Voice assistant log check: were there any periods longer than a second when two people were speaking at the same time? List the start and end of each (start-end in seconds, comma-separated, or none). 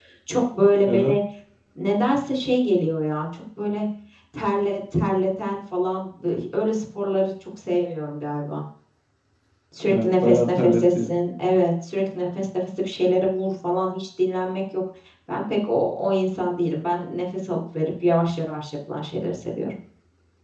9.9-11.1